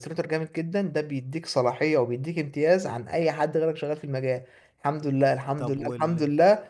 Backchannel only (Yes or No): Yes